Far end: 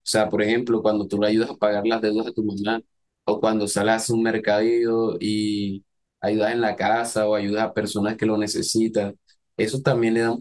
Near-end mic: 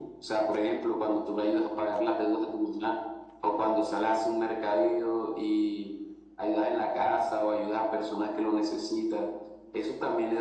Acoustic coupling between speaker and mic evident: Yes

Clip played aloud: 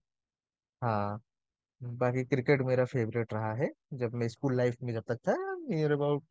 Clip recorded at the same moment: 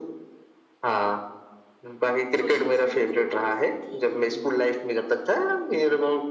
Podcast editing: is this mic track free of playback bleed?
No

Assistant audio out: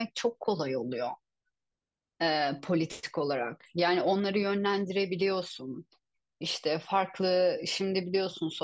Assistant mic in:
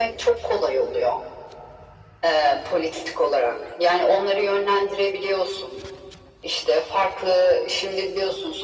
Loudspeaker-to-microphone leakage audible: Yes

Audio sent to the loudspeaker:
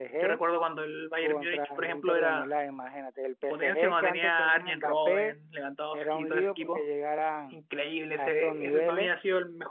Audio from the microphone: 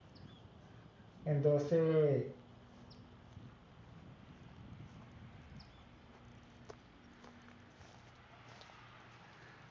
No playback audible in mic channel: Yes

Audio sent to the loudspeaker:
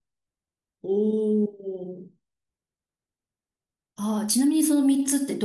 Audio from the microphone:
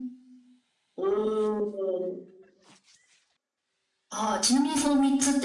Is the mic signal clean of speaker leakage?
No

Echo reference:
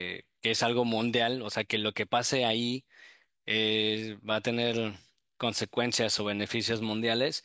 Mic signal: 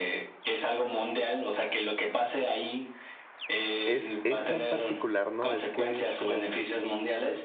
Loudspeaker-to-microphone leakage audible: Yes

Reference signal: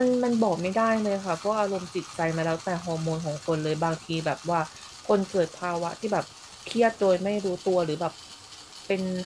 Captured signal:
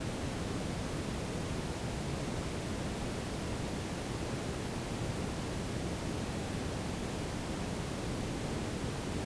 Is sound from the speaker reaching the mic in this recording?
No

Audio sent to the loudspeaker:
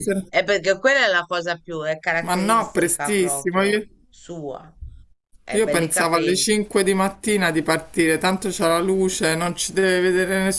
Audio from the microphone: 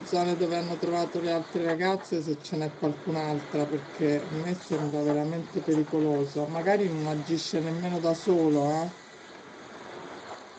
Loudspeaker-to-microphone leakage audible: No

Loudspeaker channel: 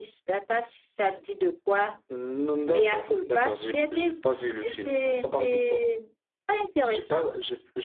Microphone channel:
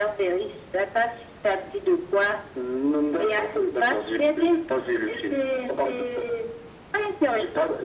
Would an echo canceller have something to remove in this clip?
Yes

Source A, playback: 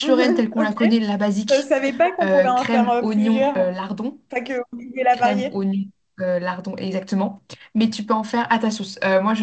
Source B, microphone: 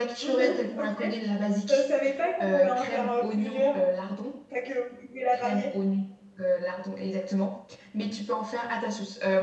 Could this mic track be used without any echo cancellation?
No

